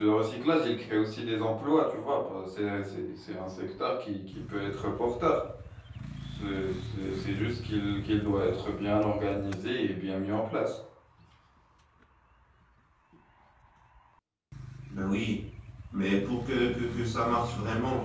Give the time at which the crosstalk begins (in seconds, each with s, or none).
none